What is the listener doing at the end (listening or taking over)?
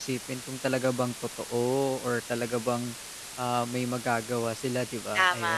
taking over